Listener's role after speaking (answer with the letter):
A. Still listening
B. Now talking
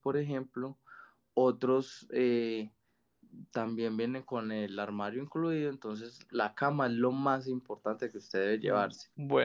B